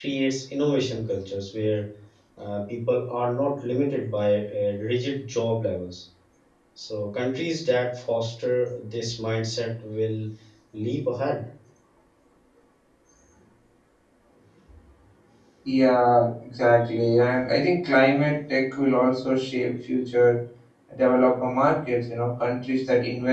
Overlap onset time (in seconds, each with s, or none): none